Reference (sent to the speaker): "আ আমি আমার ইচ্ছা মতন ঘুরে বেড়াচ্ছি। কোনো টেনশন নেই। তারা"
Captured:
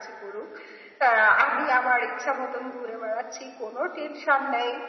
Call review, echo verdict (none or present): present